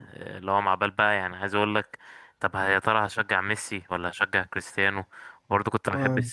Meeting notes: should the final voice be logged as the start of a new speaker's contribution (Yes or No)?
No